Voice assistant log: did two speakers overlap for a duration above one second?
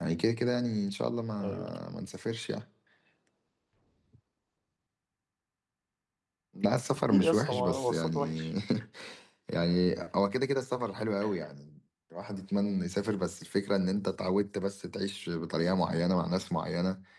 Yes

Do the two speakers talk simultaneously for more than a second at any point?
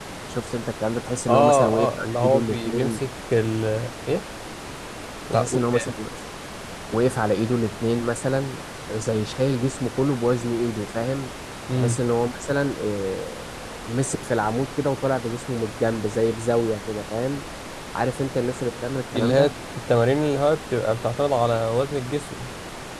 Yes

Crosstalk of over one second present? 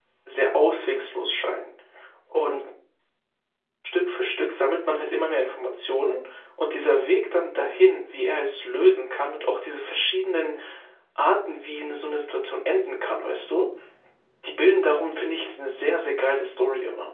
No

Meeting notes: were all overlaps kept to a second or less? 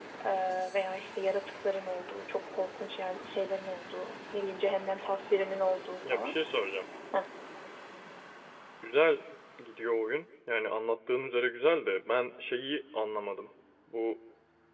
Yes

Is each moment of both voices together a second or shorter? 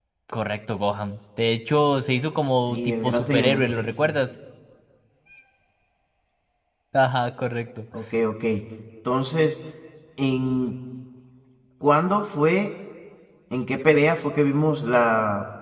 No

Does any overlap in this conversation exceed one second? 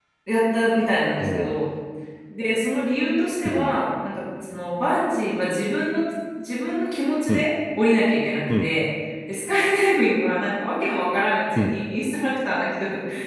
No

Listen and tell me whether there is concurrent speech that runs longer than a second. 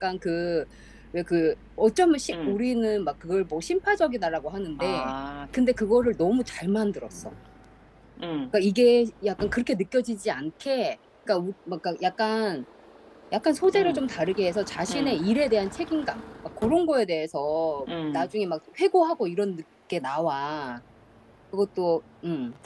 No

